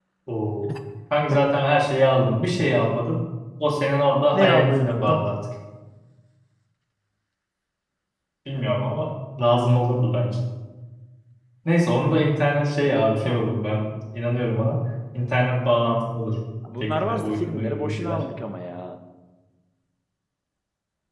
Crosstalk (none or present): present